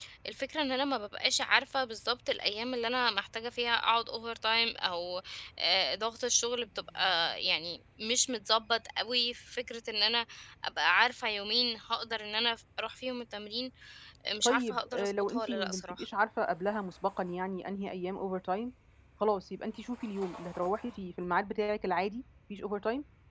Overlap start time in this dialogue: 14.4 s

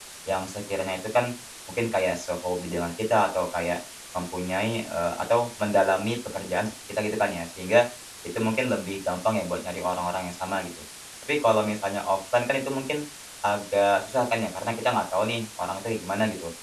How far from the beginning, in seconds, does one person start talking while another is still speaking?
none

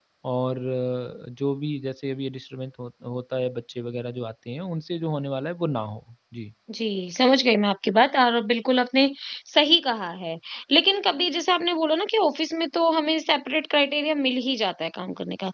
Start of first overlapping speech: none

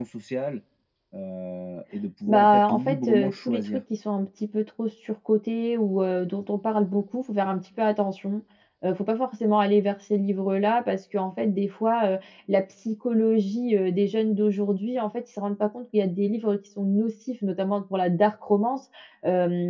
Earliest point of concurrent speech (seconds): 2.3 s

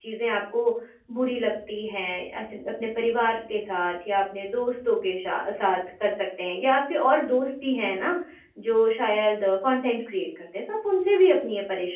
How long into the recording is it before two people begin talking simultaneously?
none

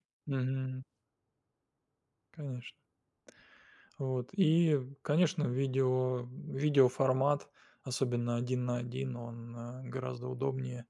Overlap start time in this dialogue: none

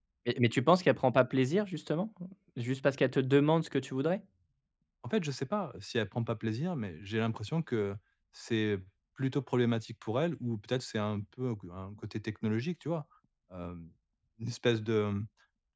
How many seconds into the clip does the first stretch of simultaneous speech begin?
none

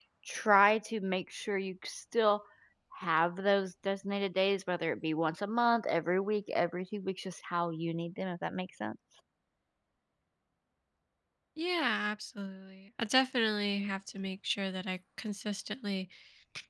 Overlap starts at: none

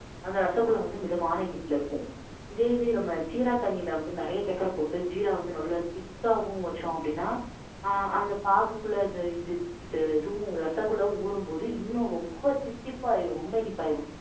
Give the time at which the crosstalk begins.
none

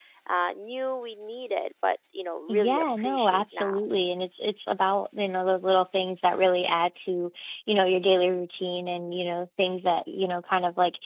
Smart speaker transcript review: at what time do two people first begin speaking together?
2.5 s

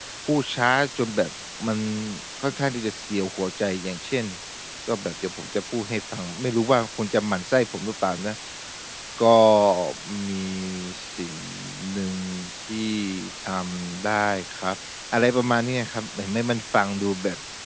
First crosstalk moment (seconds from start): none

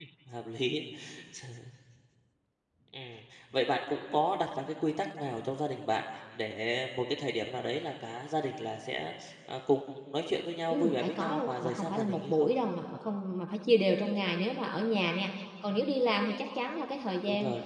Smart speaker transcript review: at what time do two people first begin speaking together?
10.7 s

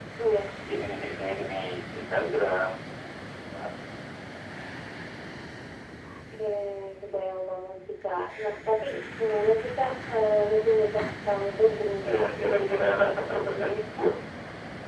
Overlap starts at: 12.0 s

